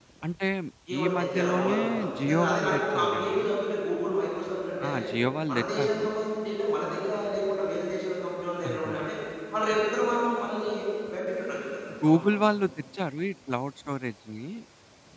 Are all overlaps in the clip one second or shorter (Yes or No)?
No